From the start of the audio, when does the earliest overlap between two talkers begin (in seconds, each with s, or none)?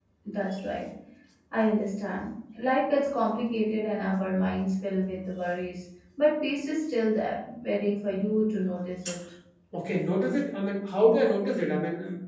none